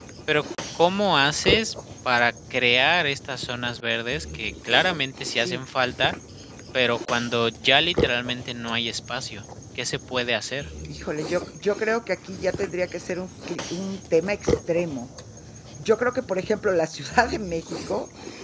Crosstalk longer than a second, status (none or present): none